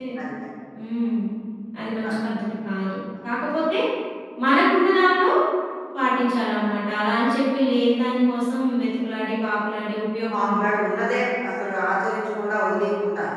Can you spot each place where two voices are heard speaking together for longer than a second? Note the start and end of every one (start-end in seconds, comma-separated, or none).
none